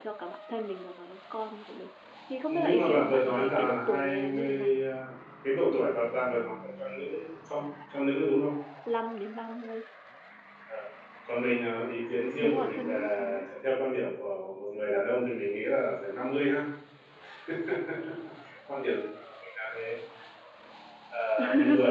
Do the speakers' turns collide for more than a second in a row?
Yes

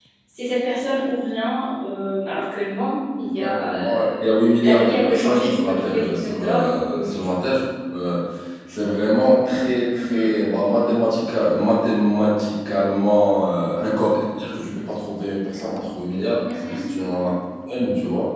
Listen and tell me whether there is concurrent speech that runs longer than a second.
Yes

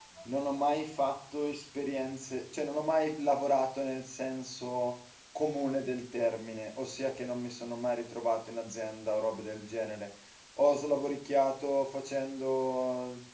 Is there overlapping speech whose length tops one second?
No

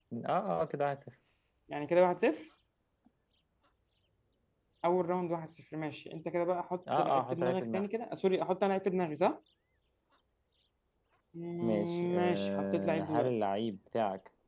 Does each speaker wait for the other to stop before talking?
No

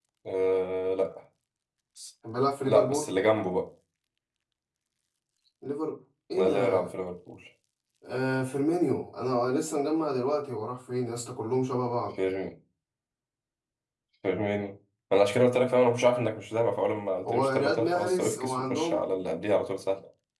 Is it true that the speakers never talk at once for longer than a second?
No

